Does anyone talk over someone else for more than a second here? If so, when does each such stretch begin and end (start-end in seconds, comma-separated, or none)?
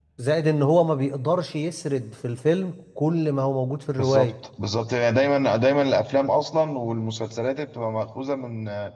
none